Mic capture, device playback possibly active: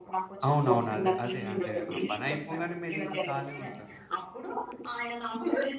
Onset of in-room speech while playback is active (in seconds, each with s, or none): 0.5 s